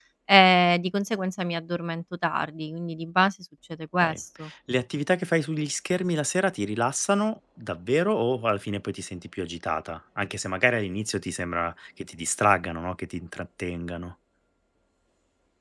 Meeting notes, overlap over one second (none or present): none